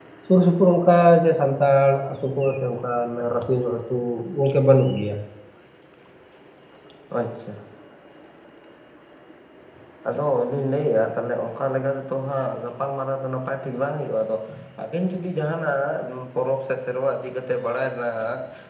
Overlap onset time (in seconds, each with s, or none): none